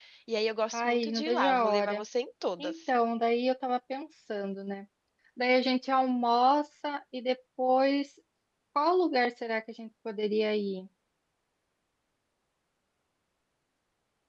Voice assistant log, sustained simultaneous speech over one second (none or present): present